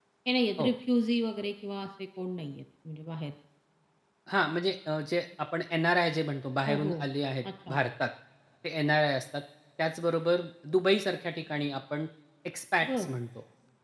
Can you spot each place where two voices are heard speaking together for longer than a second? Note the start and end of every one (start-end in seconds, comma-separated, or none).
none